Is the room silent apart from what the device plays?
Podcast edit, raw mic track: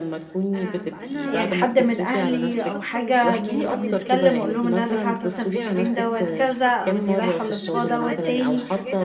No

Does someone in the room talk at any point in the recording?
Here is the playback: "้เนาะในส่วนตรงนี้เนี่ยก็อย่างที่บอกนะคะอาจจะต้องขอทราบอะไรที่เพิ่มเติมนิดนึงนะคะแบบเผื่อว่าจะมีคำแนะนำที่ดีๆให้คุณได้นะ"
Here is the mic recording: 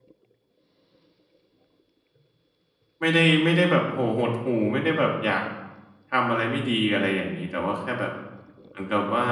Yes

